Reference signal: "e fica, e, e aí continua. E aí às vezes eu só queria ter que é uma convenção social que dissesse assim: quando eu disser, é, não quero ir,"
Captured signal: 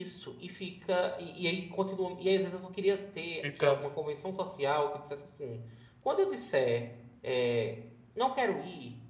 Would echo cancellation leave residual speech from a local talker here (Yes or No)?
Yes